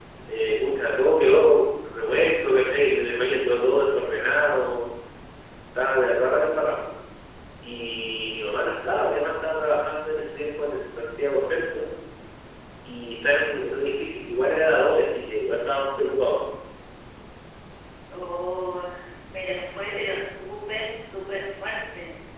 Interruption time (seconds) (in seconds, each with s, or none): none